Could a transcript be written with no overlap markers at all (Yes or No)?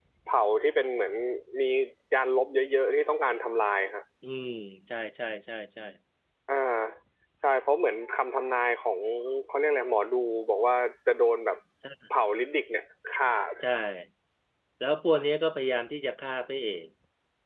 Yes